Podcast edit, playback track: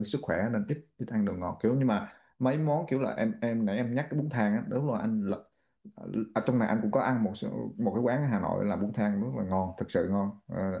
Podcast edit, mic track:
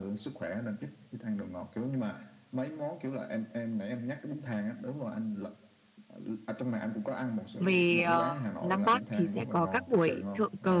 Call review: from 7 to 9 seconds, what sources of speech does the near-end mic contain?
both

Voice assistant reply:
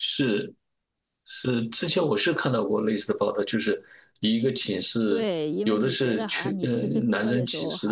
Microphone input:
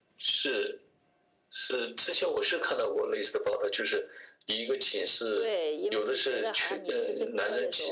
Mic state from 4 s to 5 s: echo only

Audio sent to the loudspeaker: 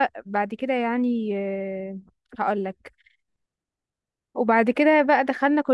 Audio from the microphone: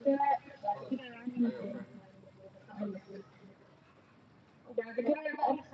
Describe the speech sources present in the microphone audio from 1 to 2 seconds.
both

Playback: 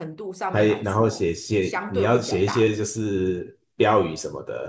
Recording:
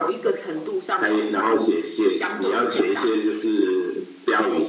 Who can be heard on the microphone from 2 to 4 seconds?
echo only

